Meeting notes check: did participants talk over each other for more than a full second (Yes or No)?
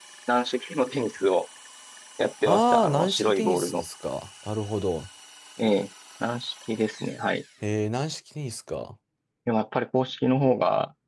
Yes